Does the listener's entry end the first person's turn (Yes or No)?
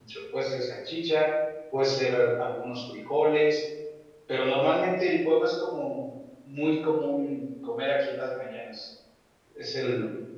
No